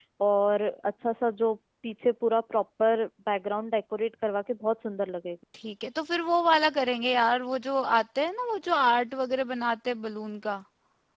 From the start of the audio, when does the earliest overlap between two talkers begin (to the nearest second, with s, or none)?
none